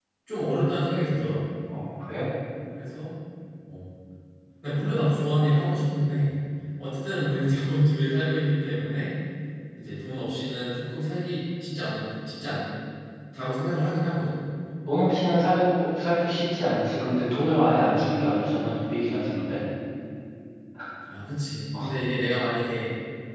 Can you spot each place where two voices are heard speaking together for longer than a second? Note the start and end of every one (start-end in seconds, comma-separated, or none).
none